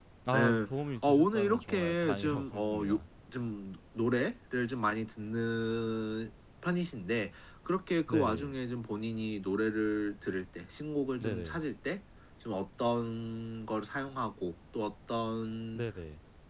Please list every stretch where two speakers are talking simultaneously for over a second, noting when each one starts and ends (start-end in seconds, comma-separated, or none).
1.0-3.0